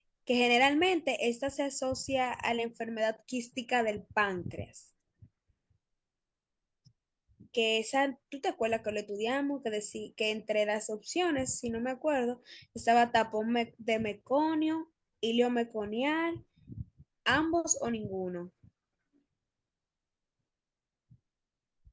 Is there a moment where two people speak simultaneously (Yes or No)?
No